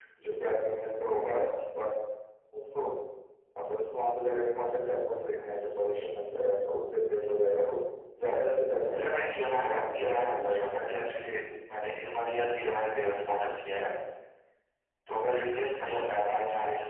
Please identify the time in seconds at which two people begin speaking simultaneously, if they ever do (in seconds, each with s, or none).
9.0 s